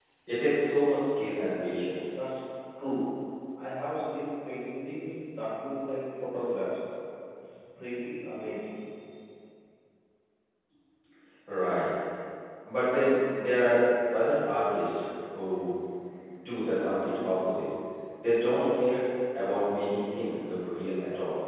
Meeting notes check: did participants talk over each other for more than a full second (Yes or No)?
No